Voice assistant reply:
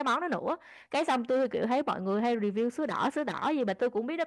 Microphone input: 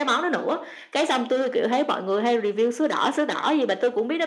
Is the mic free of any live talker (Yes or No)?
Yes